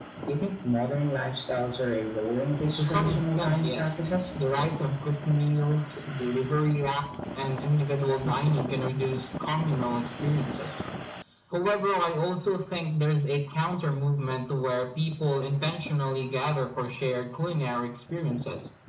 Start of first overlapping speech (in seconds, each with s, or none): 2.8 s